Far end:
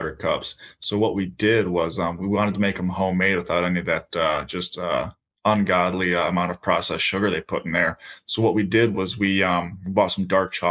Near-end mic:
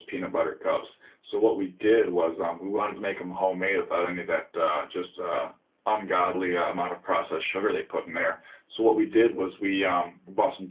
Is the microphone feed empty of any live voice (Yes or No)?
Yes